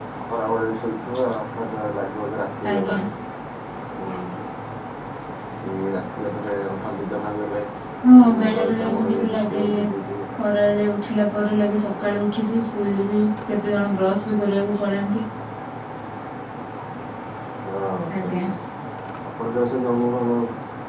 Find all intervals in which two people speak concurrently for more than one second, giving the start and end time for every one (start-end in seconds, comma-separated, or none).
8.4-9.6